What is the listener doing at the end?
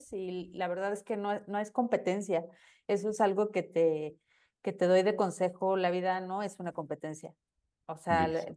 listening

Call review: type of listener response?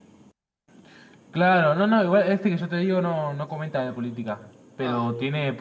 listening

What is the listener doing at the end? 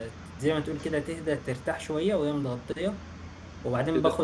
taking over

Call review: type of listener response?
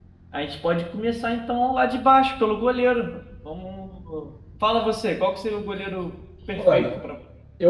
taking over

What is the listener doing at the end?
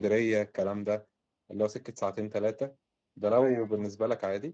listening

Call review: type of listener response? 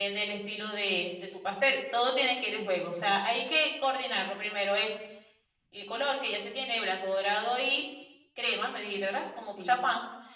listening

